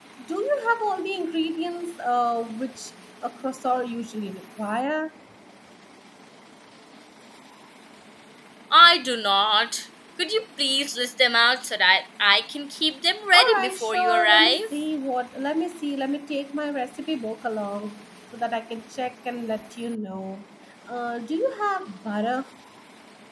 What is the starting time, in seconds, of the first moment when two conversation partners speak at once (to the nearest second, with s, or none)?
13 s